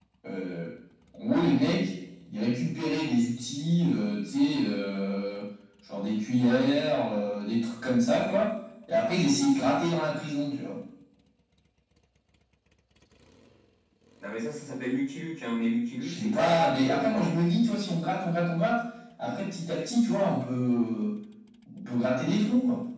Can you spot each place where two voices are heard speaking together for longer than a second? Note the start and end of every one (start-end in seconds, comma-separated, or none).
16.0-17.4